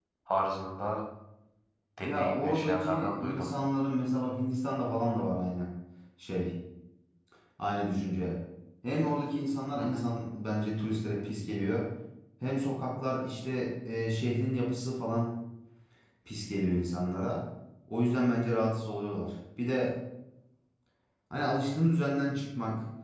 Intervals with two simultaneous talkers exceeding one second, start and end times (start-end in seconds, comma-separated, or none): 2.0-3.5